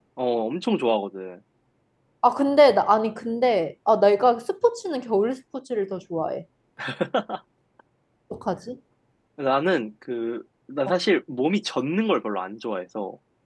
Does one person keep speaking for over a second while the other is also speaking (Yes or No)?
No